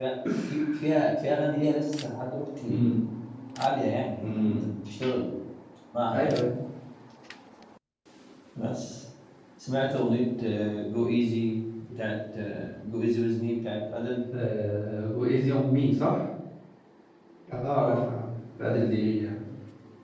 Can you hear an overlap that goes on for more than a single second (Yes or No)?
No